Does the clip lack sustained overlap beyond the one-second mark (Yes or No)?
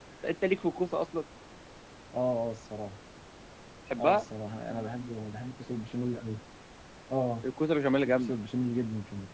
Yes